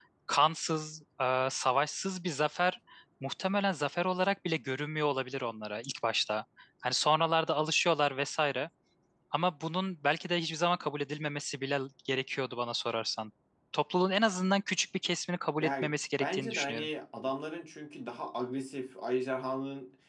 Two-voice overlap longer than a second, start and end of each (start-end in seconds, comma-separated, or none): 15.6-16.9